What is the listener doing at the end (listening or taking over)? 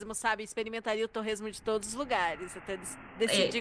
taking over